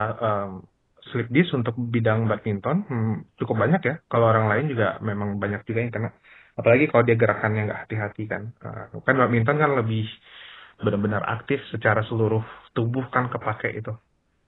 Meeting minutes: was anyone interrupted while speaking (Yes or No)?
No